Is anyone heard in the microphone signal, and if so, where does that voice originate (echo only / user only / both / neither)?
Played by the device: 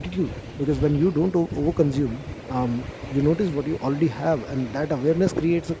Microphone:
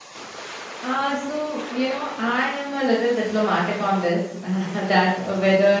user only